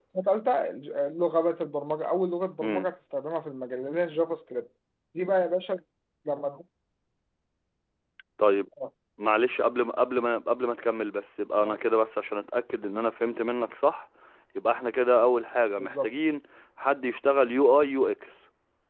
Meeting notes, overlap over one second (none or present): none